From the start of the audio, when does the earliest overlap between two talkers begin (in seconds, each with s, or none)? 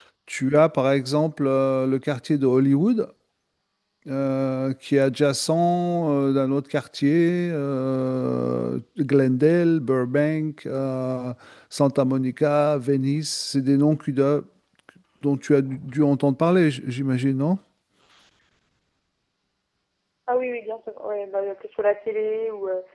none